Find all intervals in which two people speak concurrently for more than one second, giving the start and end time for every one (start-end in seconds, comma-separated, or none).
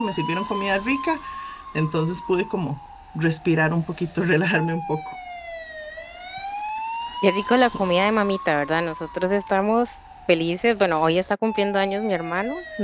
none